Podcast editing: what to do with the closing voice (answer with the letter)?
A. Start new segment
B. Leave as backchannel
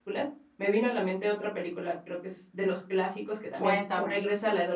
B